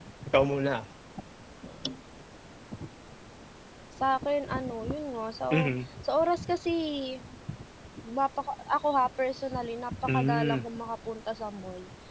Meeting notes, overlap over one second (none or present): none